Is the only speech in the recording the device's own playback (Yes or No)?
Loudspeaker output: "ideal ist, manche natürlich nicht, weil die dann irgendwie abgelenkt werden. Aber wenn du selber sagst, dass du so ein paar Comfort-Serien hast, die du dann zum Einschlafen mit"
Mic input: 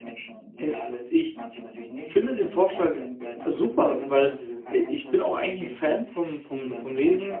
No